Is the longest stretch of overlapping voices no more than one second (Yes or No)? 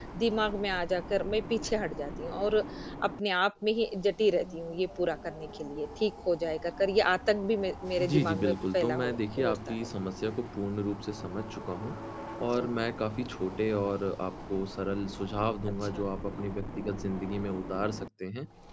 No